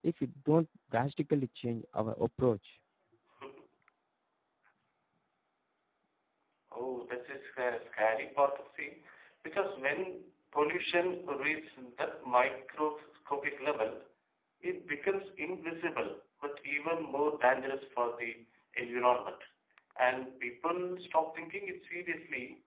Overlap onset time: none

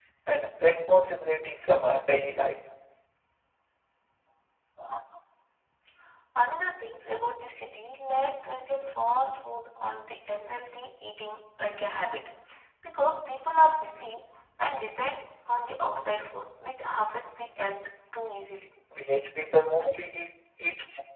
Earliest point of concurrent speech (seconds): none

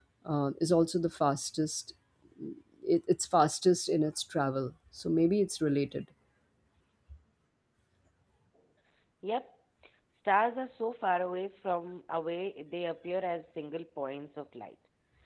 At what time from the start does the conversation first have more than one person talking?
none

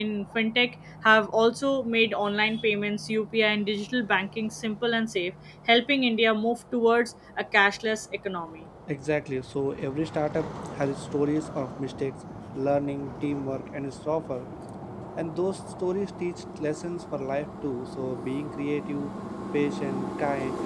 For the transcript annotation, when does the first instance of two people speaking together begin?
none

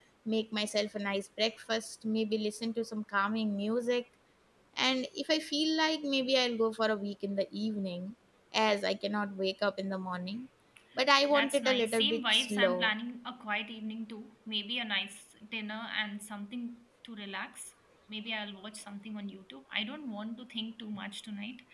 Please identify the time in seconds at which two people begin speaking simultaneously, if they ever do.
11.3 s

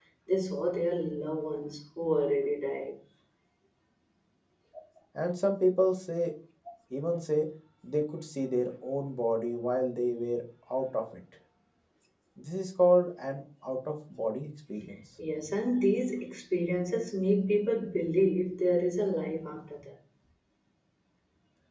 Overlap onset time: none

